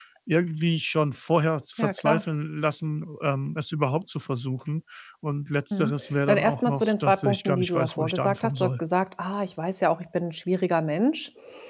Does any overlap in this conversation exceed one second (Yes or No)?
Yes